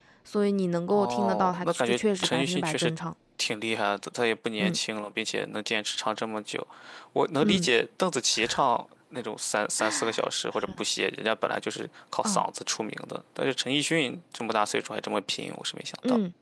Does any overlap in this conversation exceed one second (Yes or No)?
Yes